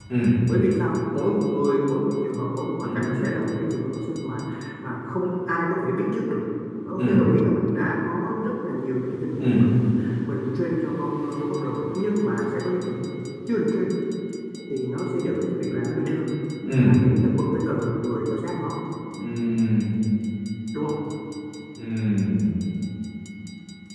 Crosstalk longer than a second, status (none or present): none